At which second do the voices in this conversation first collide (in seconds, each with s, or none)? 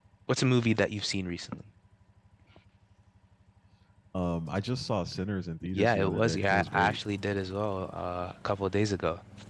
5.7 s